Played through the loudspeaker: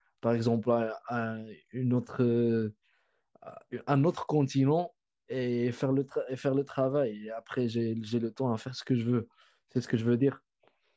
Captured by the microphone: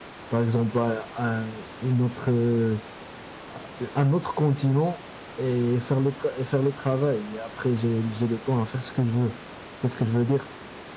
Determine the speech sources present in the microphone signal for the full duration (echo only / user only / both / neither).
echo only